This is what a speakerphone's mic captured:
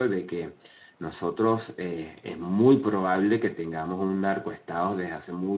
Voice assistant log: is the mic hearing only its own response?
No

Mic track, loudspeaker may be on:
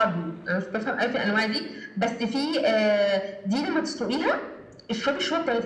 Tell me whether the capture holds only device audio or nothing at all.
Yes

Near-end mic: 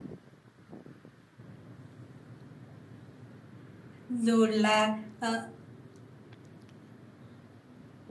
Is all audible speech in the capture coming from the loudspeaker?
No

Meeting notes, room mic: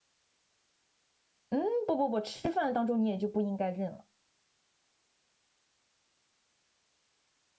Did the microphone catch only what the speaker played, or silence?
No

